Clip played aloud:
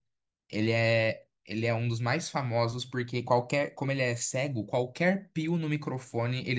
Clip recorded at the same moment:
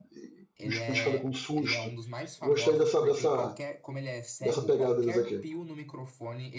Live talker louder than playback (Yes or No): Yes